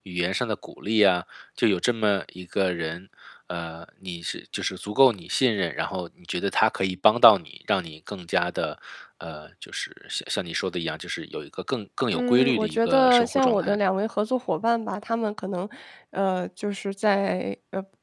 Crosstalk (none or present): present